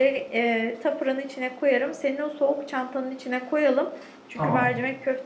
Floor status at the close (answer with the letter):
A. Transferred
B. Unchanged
B